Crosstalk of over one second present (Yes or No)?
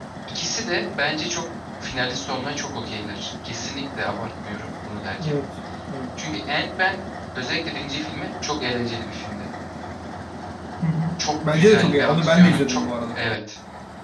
Yes